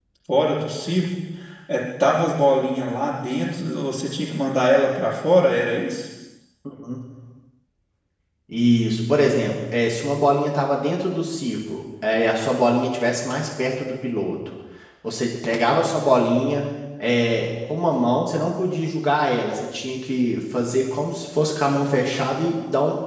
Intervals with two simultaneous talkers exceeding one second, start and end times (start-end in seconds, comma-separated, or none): none